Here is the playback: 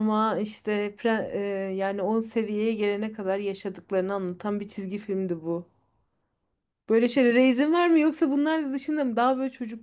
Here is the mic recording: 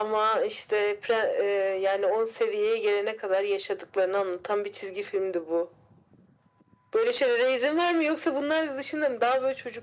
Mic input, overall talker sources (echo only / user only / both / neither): echo only